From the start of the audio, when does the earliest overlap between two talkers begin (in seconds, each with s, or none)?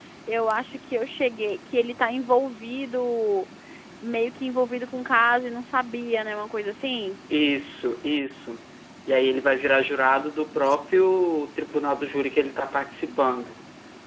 none